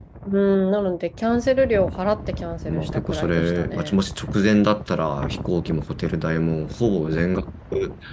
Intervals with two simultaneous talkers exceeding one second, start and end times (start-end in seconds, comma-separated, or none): 2.6-4.0